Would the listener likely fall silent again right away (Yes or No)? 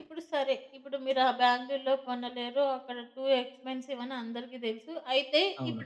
Yes